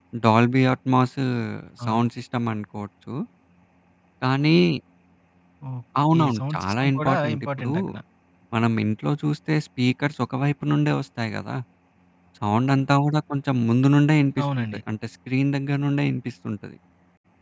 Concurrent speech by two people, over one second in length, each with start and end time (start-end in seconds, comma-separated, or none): 6.2-7.7